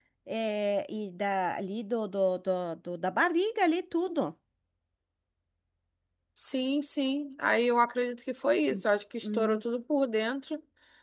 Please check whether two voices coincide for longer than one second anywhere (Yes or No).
No